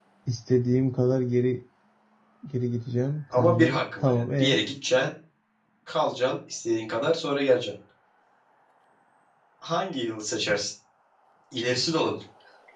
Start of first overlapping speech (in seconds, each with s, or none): 3.4 s